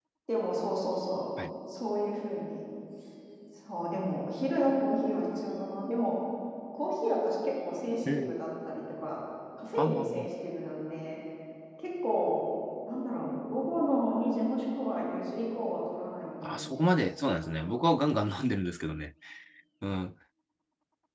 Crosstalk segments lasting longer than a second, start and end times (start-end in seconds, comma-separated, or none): 16.4-17.8